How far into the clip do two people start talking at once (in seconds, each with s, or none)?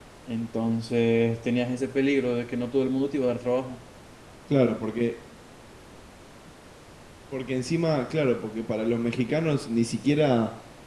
none